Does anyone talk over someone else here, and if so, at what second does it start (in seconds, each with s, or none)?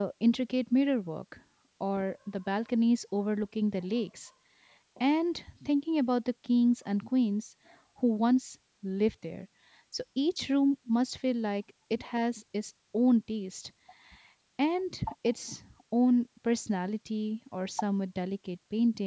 none